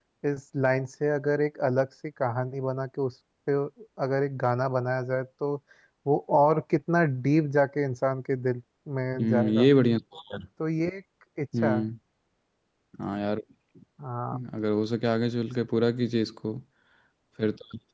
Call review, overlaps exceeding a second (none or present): none